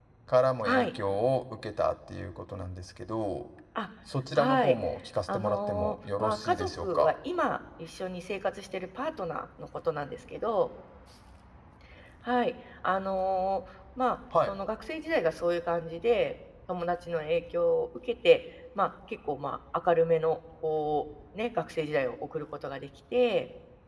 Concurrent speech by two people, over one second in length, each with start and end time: 5.3-7.2

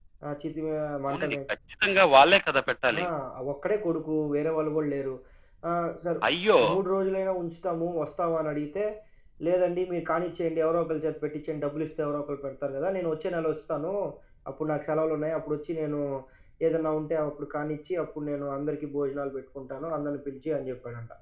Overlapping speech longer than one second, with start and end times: none

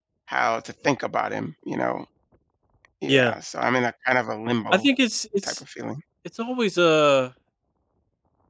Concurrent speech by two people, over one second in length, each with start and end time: none

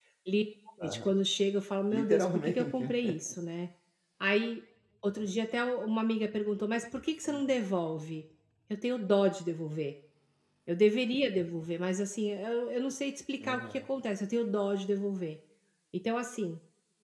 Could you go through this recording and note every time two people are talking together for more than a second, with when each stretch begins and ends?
1.9-3.1

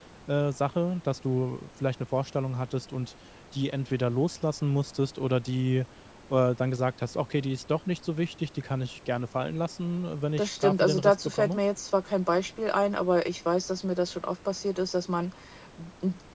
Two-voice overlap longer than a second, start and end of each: 10.4-11.6

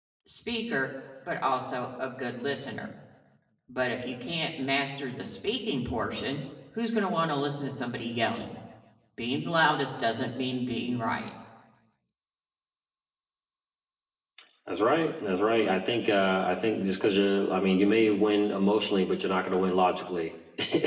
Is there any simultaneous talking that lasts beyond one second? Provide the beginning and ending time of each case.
none

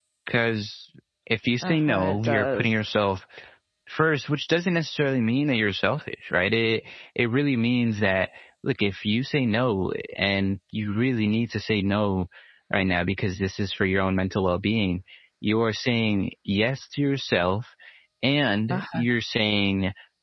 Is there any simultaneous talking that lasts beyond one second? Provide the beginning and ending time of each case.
1.6-2.9

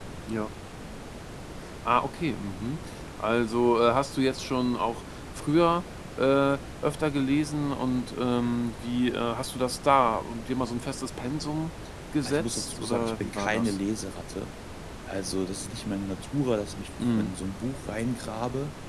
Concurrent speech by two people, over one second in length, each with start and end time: 12.2-13.8

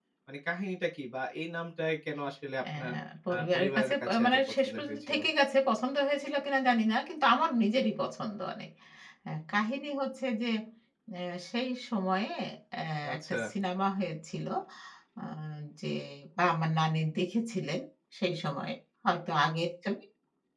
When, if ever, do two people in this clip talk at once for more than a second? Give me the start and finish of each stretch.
3.3-5.2

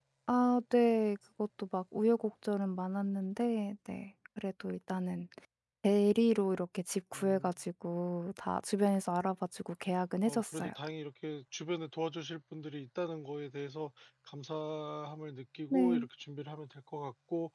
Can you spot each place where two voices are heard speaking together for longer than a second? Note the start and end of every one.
none

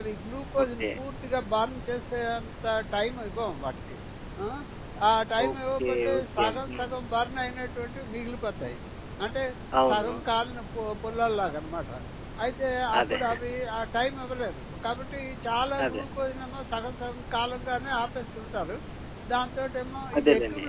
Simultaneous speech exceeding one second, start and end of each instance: 5.5-6.9

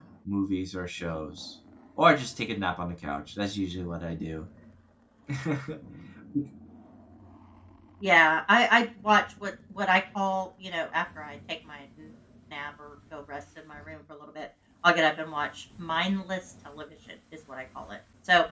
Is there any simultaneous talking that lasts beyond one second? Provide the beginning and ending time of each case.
none

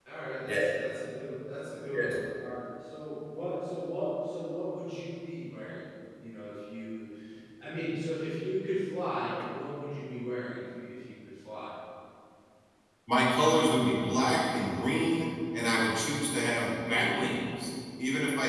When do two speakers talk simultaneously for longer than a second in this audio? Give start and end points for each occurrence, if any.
none

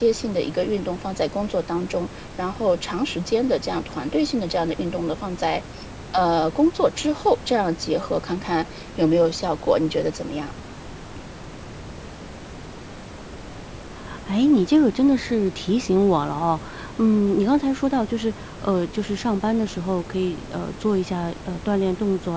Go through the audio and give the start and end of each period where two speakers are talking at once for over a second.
none

